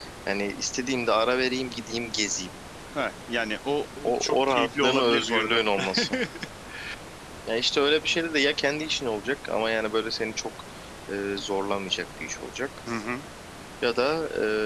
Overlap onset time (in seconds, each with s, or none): 4.0 s